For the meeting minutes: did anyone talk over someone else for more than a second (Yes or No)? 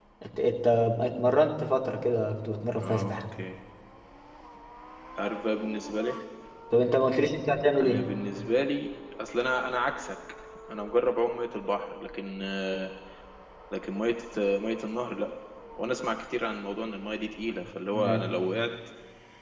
No